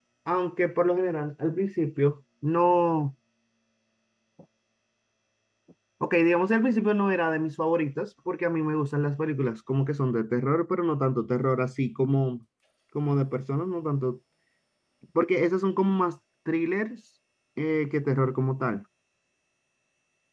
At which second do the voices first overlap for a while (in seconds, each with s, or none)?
none